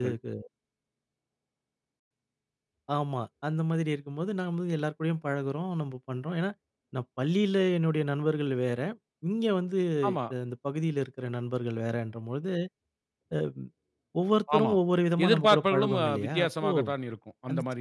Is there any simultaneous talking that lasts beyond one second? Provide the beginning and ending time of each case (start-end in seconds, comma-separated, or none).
15.2-16.7